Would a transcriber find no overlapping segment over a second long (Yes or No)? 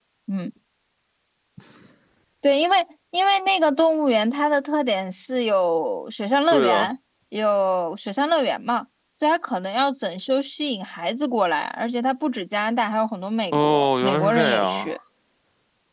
No